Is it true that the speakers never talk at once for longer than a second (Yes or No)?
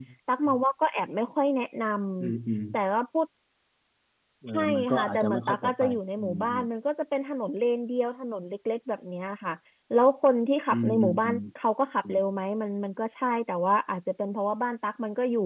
No